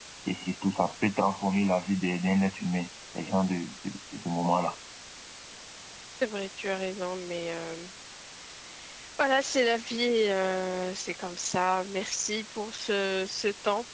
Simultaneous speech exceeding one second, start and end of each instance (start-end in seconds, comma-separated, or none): none